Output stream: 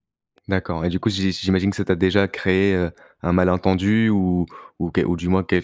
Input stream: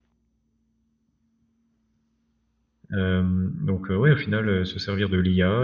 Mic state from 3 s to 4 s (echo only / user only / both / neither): user only